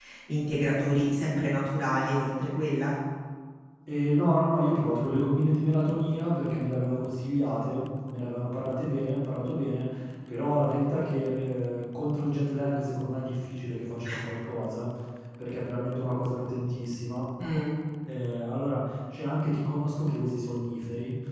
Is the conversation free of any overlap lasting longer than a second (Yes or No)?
Yes